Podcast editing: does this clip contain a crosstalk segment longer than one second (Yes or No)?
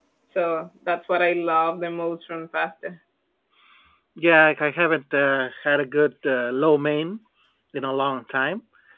No